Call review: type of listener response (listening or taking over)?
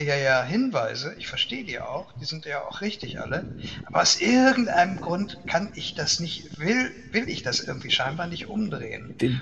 listening